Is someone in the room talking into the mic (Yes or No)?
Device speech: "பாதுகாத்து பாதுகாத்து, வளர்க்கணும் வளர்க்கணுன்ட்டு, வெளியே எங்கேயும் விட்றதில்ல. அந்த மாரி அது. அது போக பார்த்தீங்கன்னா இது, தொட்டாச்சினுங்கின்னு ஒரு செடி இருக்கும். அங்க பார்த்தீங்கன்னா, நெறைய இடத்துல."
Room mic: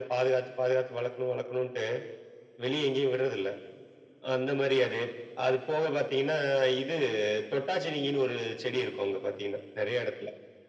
No